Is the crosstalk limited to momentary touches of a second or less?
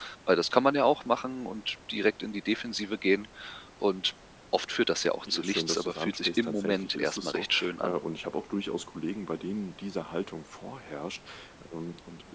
No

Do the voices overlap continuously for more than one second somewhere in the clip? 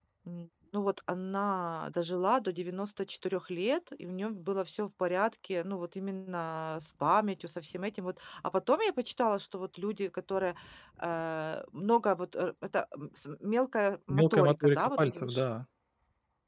Yes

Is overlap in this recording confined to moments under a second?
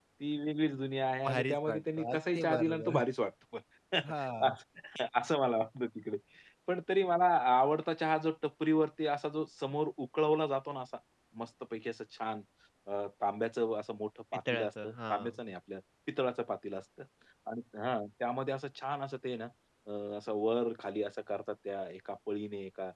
No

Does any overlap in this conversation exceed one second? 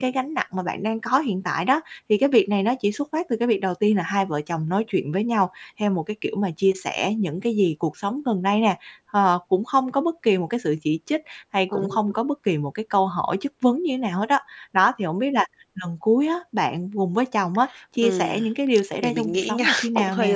Yes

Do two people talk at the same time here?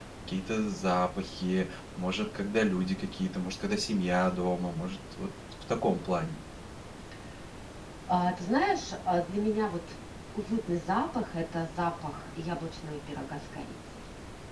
No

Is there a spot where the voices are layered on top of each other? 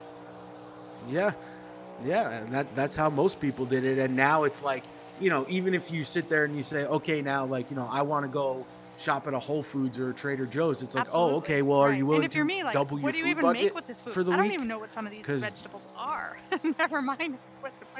Yes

